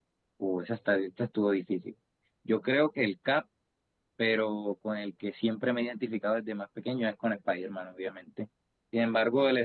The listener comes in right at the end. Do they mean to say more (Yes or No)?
No